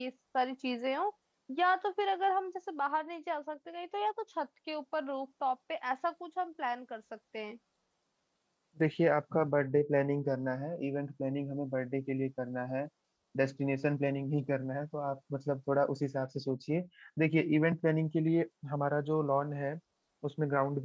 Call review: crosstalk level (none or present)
none